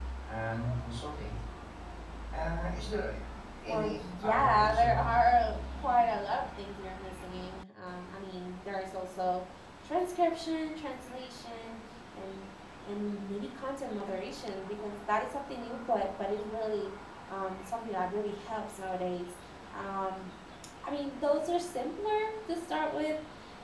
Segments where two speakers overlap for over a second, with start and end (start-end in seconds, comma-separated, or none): 3.6-5.1